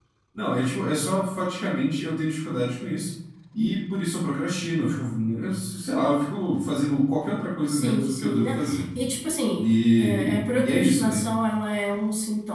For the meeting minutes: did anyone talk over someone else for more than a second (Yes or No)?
Yes